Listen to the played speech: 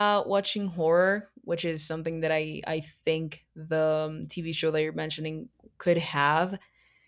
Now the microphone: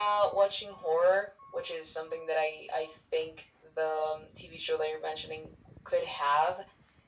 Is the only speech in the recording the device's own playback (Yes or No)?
Yes